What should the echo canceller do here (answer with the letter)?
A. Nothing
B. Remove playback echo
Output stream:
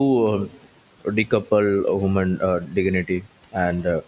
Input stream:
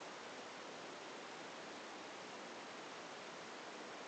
A